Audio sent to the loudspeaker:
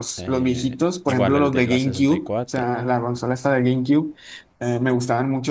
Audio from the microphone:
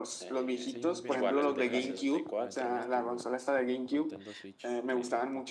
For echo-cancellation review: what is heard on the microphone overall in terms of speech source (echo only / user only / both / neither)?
both